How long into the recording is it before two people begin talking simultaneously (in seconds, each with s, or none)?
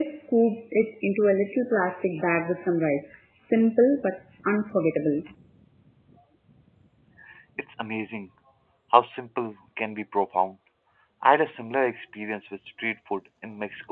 none